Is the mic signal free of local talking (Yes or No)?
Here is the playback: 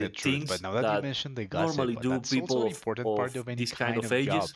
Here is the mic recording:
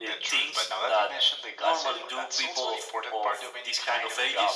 Yes